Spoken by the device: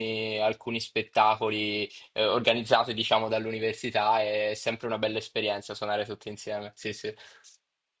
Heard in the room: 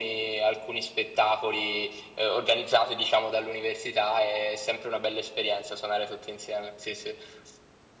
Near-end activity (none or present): none